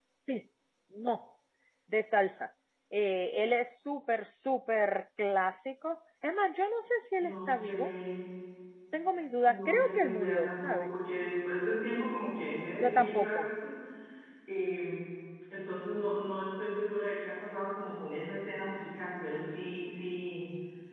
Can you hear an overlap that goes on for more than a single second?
Yes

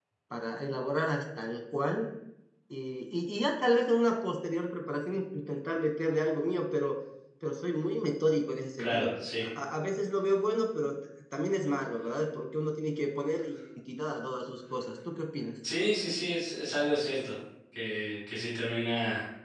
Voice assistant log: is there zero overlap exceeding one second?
Yes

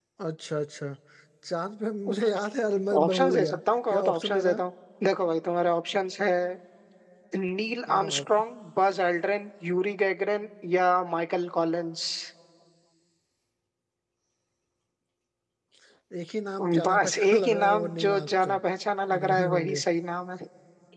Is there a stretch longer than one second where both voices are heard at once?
Yes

